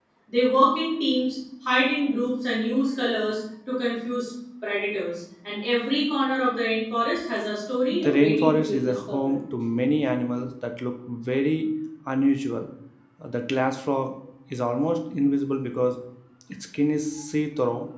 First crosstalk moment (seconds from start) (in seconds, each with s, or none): 7.8 s